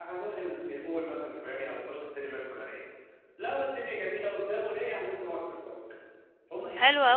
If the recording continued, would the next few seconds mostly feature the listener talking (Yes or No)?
Yes